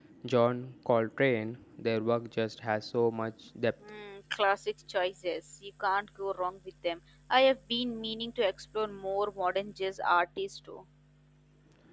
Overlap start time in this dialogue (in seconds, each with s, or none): none